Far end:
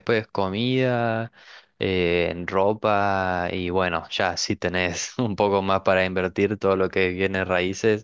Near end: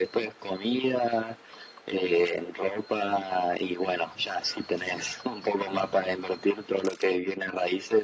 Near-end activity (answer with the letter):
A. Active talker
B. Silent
B